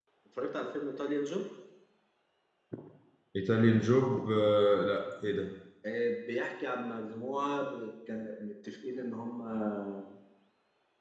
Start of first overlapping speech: none

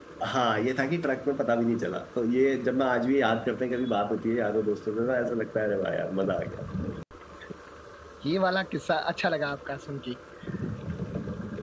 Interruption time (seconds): none

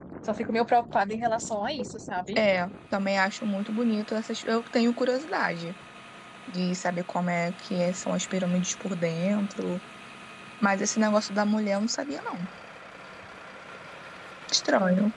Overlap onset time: none

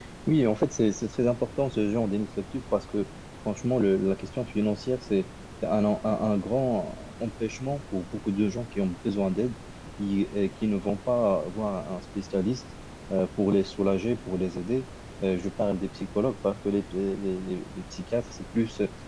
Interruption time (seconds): none

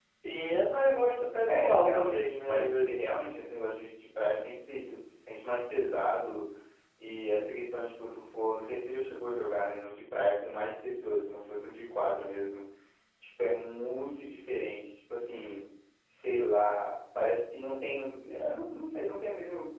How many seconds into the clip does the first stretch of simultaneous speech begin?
1.4 s

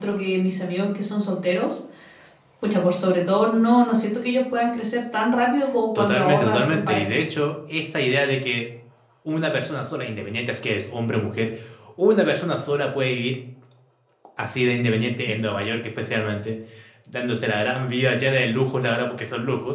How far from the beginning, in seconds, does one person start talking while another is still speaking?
6.0 s

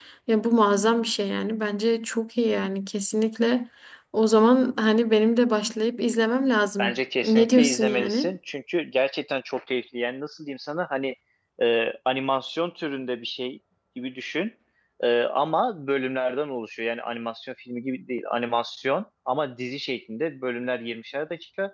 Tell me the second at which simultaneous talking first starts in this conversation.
6.8 s

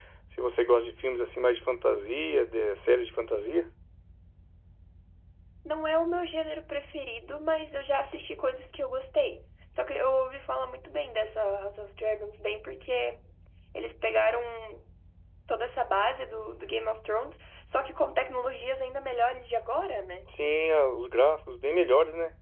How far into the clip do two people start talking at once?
none

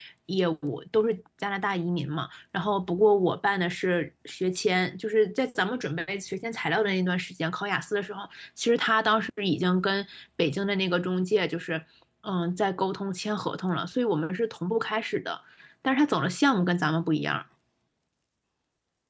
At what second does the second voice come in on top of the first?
none

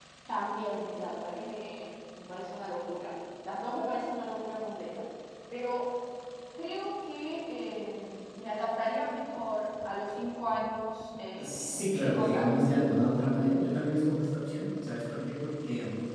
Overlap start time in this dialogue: 11.4 s

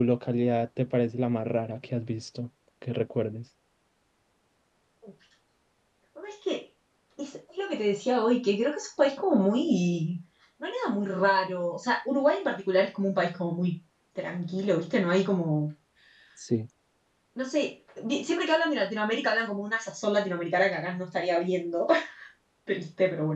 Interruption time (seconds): none

